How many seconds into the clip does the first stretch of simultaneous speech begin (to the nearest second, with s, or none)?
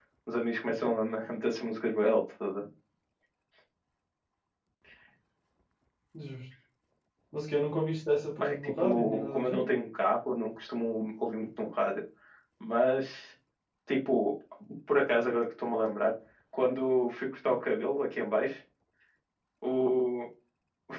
8 s